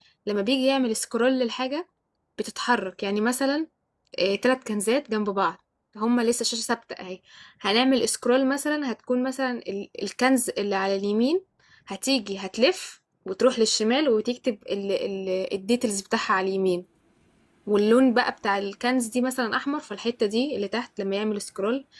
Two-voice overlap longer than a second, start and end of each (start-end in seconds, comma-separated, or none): none